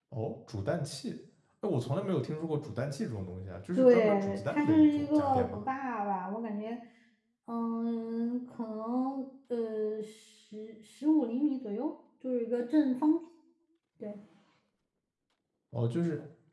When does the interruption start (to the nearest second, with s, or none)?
4 s